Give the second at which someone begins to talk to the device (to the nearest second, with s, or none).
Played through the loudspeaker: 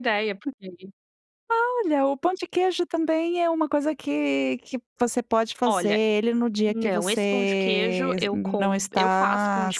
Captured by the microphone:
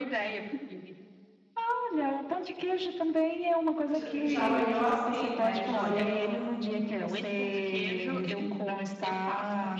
4 s